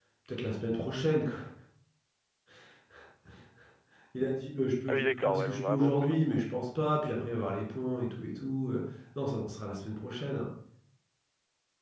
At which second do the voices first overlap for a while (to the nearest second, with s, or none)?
5 s